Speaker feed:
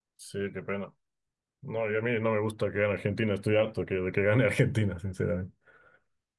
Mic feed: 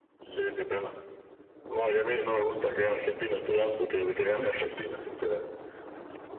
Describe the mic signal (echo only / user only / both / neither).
echo only